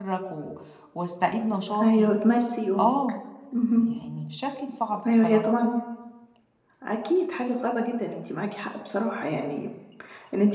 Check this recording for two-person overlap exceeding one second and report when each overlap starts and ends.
none

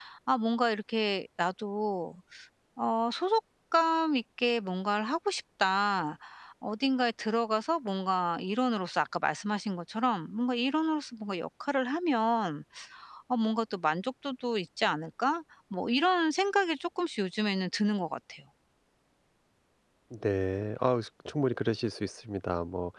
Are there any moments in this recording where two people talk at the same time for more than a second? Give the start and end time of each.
none

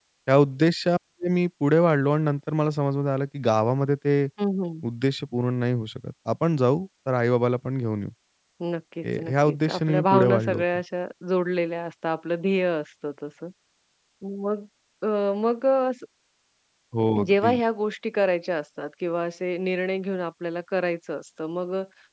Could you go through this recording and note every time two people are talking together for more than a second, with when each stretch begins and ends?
9.2-10.6

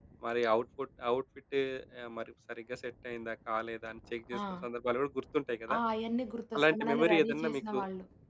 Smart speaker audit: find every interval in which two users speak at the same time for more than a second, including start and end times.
6.6-7.8

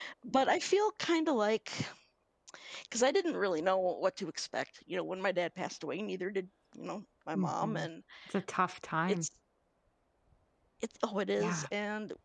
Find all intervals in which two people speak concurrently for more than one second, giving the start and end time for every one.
none

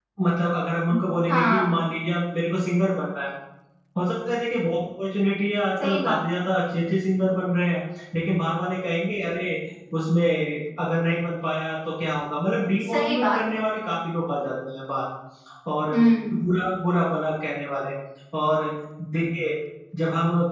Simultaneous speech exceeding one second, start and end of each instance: none

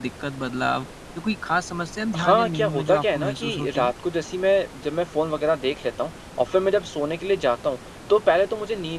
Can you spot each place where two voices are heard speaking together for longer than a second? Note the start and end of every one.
2.2-3.9

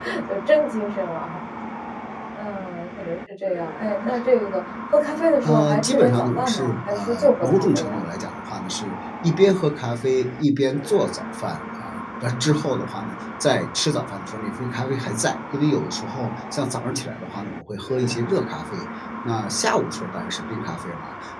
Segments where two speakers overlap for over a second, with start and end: 5.4-8.0

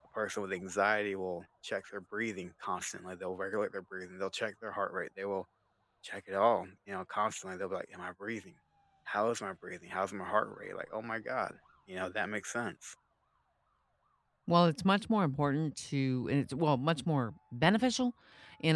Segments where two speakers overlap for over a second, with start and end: none

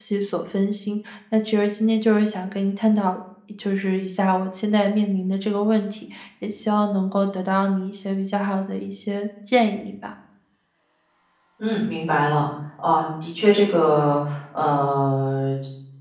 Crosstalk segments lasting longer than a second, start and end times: none

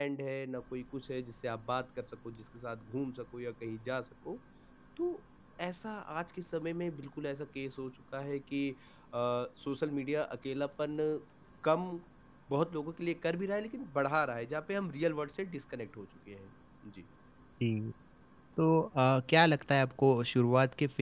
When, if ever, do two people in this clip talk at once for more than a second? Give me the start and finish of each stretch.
none

